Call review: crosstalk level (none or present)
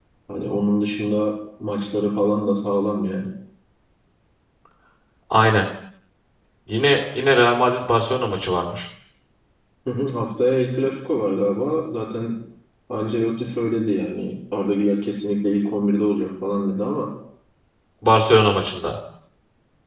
none